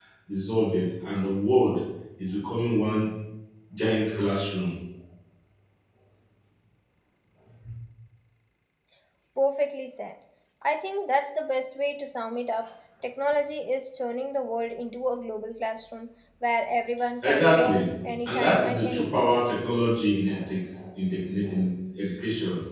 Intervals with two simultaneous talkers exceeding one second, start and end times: 17.2-19.3

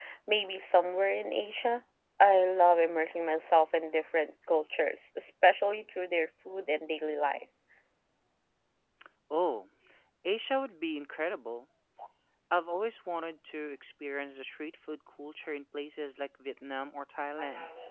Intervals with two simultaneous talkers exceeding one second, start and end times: none

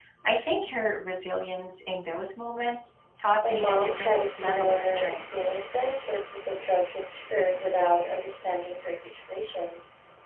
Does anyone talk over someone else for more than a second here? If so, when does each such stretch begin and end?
3.5-5.3

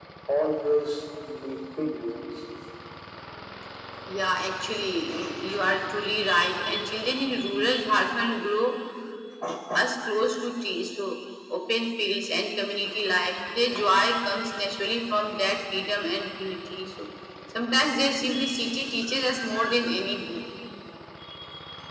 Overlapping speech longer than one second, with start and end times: none

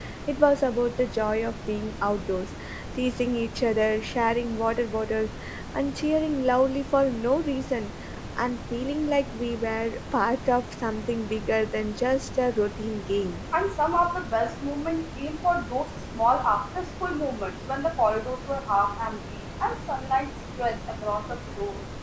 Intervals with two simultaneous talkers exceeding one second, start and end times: none

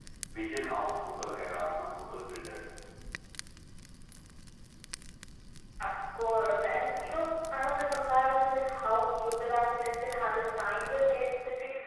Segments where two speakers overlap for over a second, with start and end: none

